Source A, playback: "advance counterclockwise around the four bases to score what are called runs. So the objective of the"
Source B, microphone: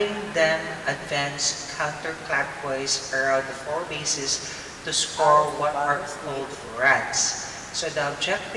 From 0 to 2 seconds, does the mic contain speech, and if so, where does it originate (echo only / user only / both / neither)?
echo only